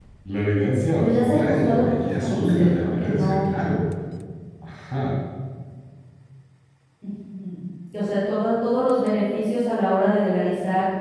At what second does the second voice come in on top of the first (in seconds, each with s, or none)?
1.0 s